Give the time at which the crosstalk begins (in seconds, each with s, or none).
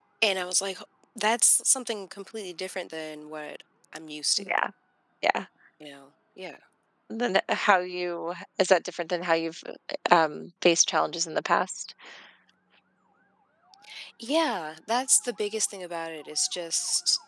none